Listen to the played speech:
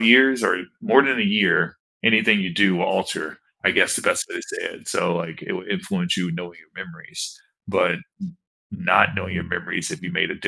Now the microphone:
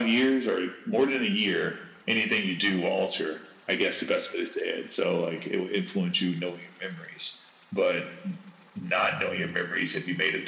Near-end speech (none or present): none